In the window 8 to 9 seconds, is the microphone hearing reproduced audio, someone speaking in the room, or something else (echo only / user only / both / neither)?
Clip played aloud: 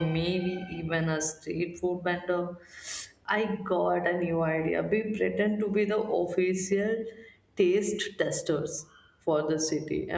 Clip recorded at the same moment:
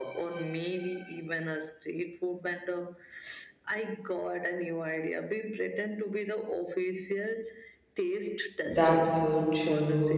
both